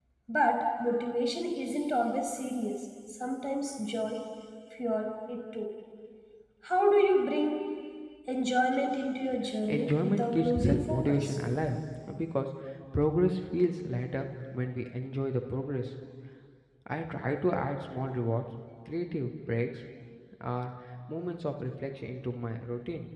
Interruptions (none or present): present